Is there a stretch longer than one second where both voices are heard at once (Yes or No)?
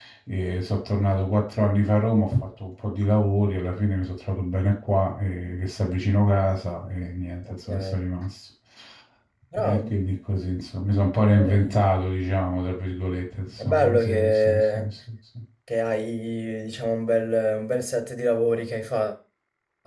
Yes